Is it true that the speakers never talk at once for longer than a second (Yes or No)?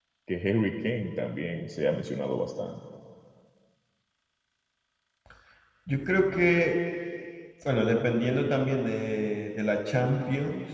Yes